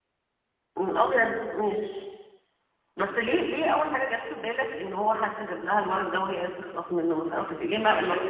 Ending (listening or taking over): taking over